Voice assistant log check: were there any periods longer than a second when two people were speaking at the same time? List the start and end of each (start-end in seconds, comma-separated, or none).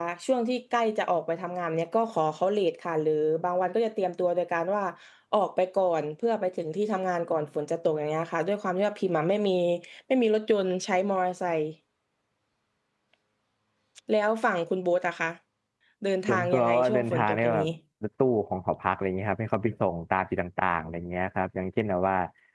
16.3-17.7